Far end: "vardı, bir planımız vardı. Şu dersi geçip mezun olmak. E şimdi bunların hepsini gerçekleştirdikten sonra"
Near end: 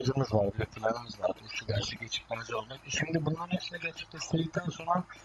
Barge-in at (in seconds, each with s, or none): none